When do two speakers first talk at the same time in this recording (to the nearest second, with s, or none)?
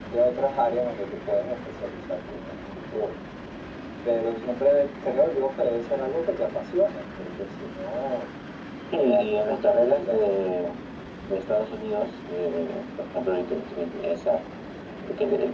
9 s